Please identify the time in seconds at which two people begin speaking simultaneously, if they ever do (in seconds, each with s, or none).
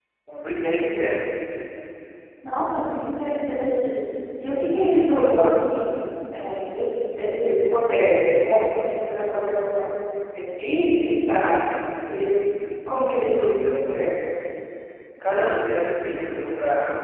none